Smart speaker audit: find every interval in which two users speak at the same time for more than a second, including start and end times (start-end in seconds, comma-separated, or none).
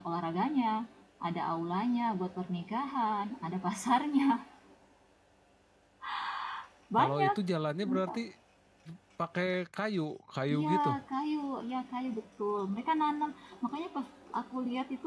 none